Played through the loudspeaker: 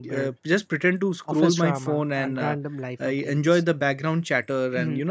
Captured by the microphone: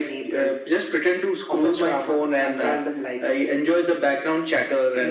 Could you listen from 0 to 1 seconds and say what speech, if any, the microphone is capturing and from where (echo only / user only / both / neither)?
echo only